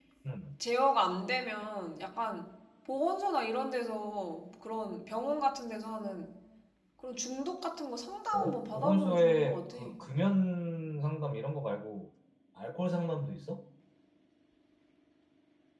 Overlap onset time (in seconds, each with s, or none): 8.3 s